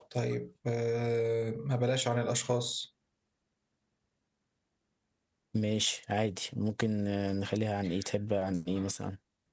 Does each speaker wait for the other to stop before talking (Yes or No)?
Yes